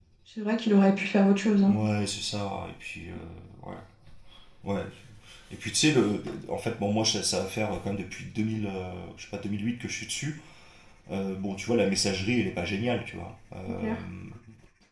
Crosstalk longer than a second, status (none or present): none